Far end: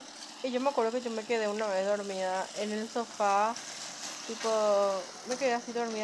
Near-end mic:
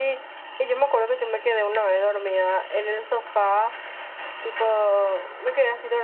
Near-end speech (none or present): none